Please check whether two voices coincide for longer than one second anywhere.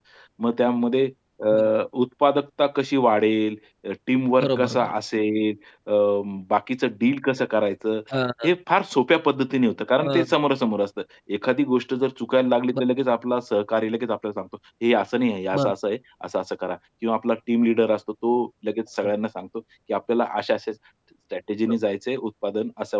No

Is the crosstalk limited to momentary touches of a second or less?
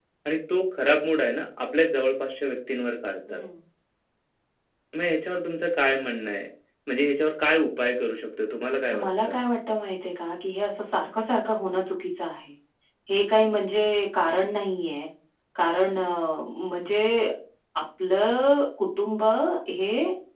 Yes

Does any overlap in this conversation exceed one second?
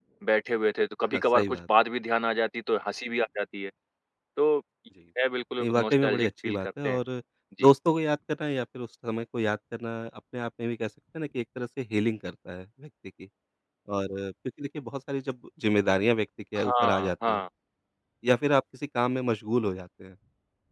Yes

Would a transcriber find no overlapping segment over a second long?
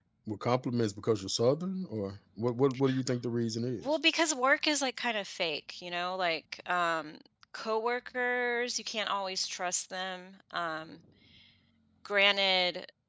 Yes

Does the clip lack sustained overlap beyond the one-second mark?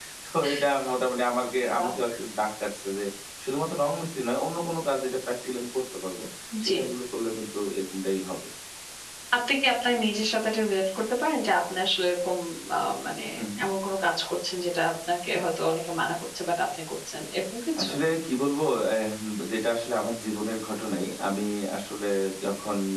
Yes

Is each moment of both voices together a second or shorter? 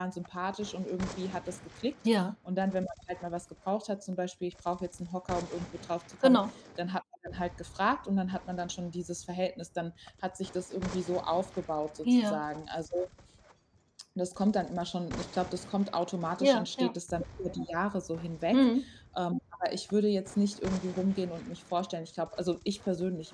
Yes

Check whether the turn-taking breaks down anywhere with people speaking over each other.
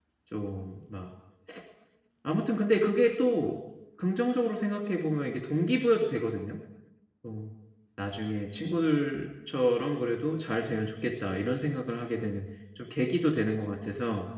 No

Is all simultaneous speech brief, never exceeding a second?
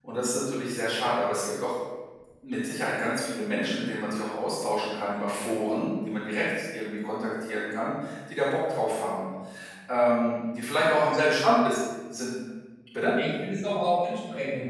Yes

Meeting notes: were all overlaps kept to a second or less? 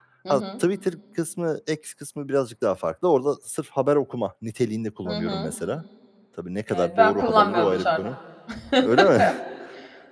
No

